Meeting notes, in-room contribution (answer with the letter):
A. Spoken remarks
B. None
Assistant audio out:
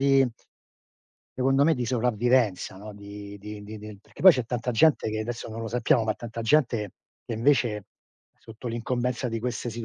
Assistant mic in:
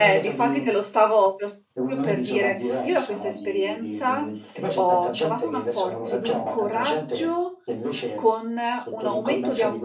A